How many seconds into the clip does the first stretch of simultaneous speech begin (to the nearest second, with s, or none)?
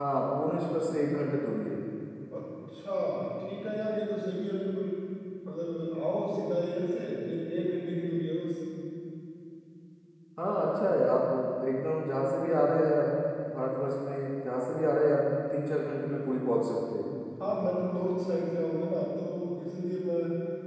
none